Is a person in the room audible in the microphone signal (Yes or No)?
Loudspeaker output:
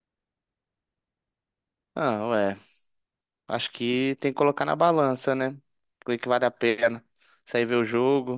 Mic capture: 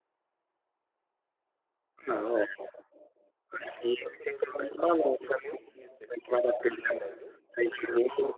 Yes